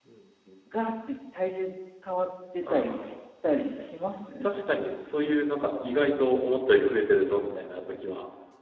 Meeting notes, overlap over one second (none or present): none